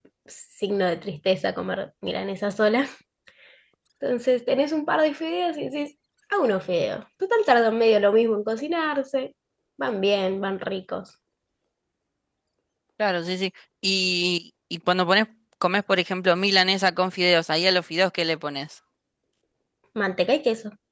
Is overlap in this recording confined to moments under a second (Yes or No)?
Yes